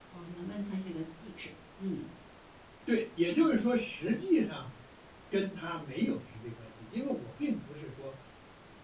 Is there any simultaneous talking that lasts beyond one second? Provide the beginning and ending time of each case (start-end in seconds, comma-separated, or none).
none